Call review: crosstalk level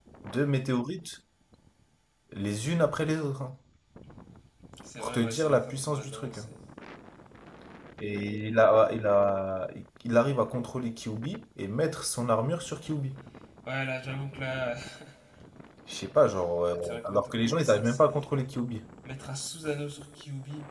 present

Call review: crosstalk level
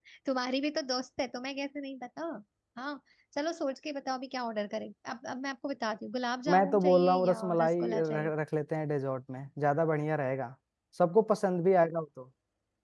present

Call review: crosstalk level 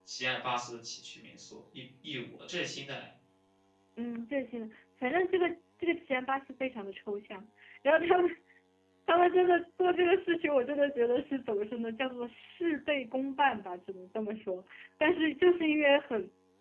none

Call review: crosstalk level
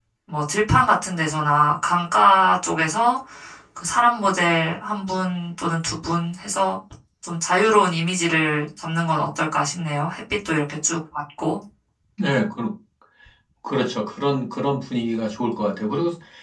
none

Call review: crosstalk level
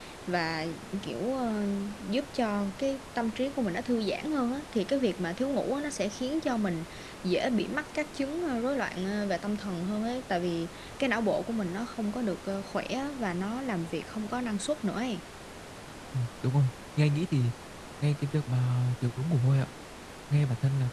none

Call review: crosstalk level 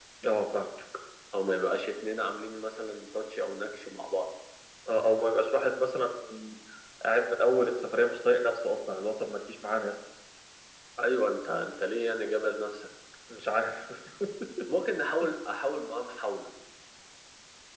none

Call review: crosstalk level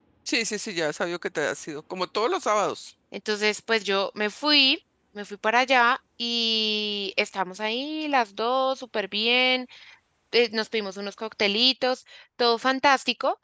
none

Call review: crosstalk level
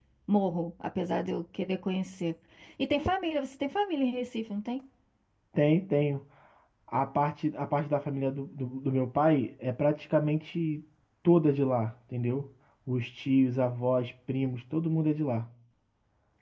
none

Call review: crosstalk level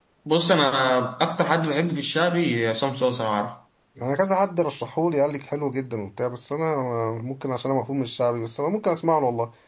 none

